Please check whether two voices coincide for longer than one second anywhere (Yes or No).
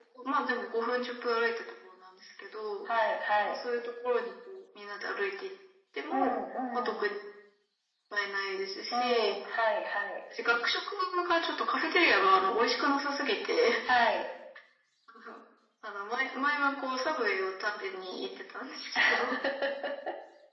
No